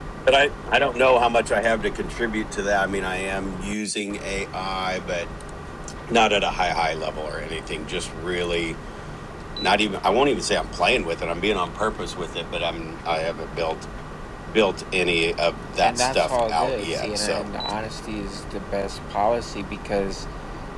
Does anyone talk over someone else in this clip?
Yes, from 15.8 s

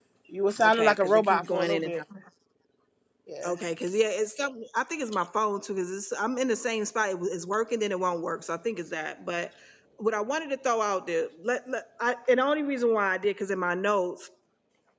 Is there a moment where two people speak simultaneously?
Yes, from 0.6 s

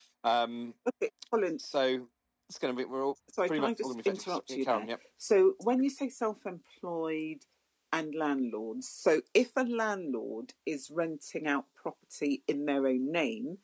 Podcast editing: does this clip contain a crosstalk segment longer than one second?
Yes, from 3.4 s

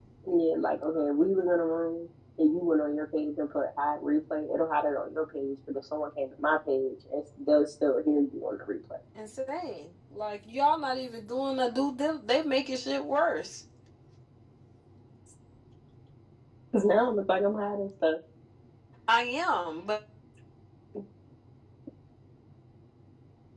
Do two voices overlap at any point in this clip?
No

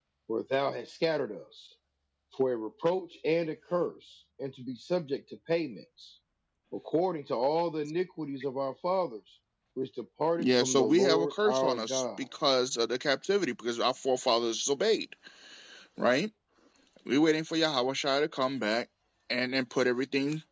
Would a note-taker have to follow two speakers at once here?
Yes, from 10.4 s

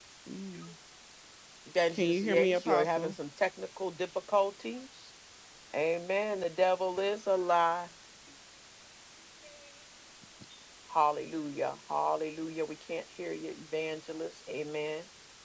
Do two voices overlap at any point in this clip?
Yes, from 1.9 s

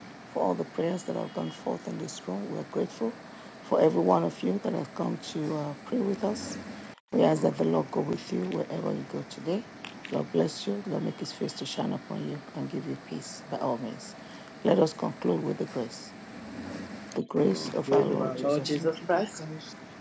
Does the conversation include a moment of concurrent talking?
Yes, from 17.9 s

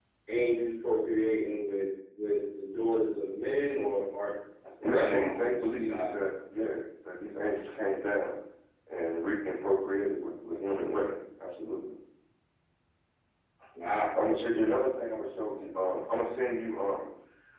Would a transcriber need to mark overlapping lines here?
Yes, from 4.8 s

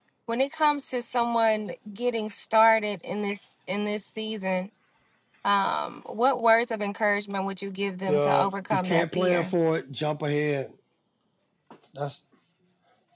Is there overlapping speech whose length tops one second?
Yes, from 8.1 s

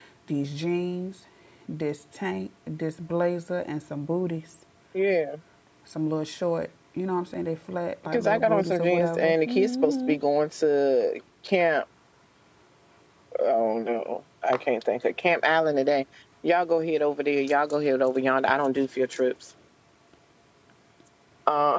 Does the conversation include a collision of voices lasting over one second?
Yes, from 8.0 s

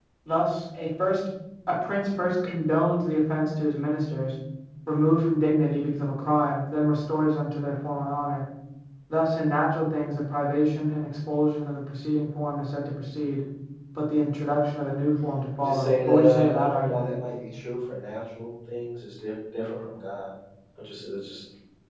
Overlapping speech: Yes, from 15.6 s

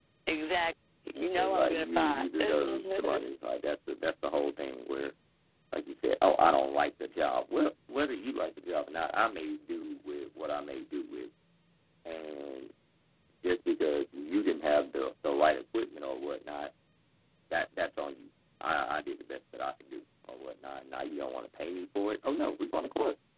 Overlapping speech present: Yes, from 1.4 s

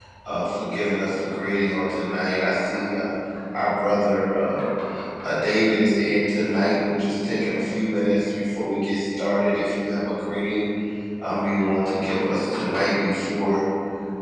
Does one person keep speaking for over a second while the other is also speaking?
No

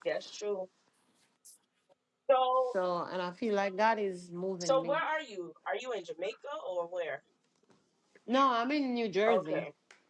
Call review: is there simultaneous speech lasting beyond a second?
No

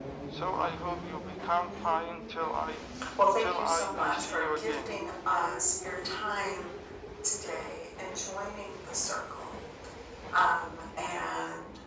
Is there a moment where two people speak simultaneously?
Yes, from 3.4 s

